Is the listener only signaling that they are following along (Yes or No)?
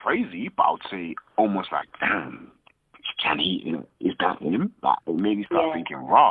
Yes